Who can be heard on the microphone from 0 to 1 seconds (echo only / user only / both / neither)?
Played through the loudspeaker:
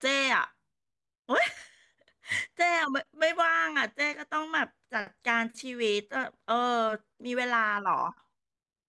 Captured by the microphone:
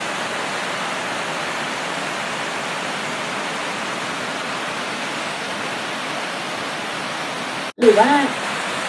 neither